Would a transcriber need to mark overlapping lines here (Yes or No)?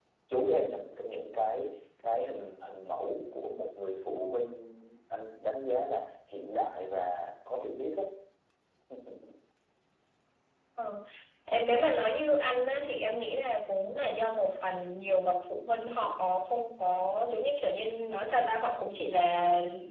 No